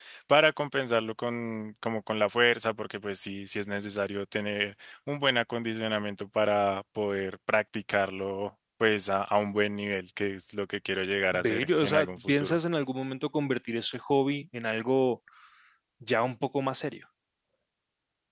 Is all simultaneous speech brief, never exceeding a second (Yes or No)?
No